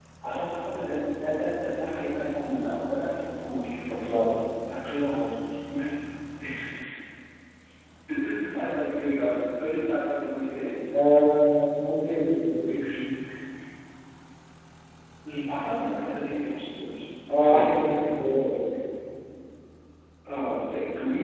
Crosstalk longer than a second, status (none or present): none